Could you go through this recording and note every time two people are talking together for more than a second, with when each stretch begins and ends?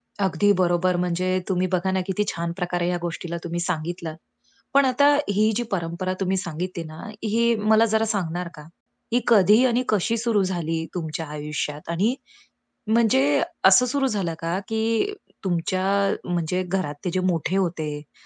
none

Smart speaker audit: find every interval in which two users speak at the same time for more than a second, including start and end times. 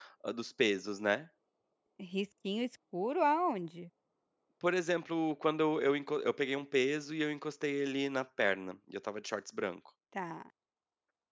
none

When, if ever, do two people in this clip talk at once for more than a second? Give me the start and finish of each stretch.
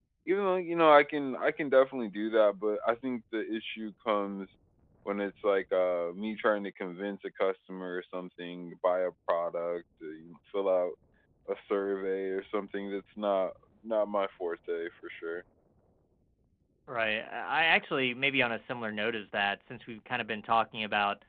none

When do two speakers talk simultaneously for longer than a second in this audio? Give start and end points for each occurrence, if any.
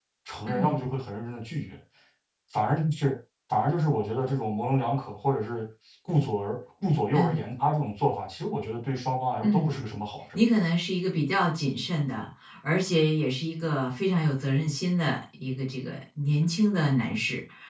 none

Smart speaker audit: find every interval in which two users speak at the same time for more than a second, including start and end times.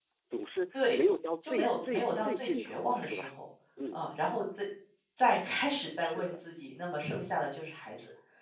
1.4-3.3

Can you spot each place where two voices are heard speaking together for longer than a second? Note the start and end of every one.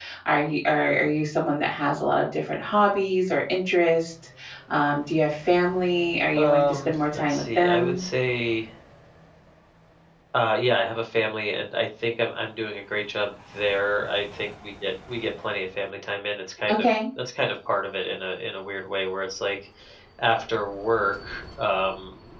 6.3-8.0

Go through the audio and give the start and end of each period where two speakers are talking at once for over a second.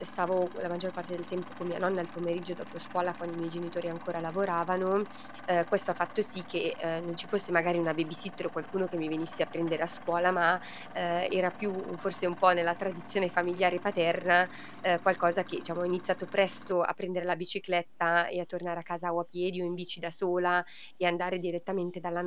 none

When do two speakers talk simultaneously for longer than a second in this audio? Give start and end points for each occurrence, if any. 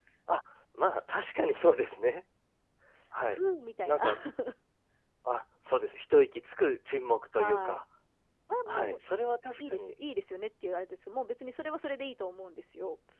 none

